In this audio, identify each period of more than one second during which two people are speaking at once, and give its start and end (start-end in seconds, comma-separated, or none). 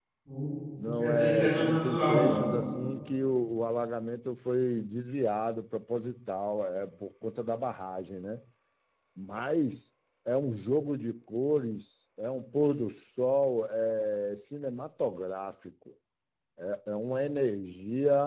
0.8-2.4